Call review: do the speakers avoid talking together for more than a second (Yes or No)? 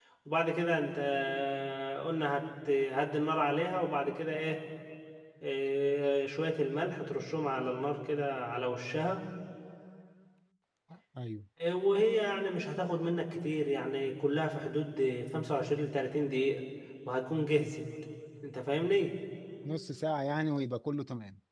Yes